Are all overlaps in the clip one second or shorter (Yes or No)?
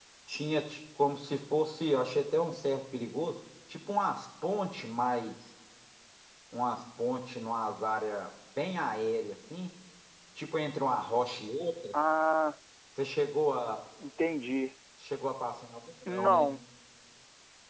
Yes